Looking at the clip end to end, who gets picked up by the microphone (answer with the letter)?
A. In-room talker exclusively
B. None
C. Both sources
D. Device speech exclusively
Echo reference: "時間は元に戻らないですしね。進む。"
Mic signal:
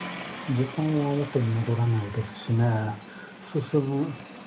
D